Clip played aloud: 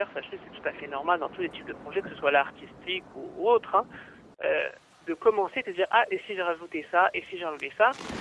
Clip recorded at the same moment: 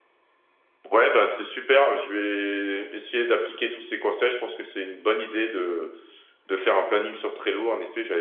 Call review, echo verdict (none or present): none